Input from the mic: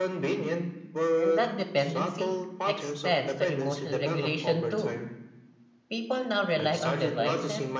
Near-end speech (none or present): present